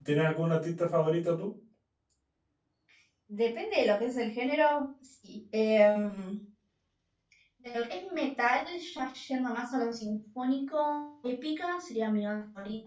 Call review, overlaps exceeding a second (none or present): none